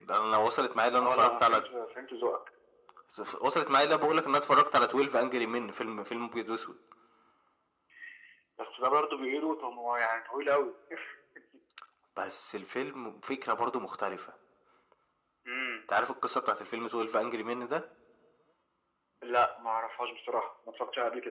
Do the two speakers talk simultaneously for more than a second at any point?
No

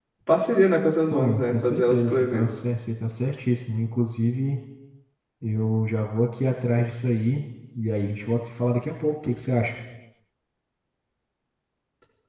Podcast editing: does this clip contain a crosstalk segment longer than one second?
Yes, from 1.1 s

